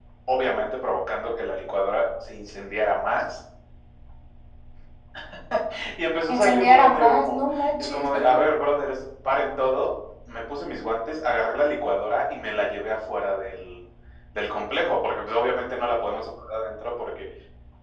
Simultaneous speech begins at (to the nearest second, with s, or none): 6 s